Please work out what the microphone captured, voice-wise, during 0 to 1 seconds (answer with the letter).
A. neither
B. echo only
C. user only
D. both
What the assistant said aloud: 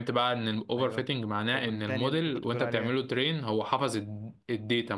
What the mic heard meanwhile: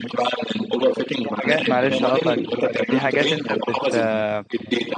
B